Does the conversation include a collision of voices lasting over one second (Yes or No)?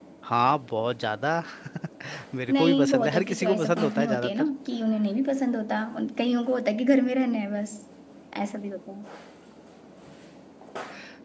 Yes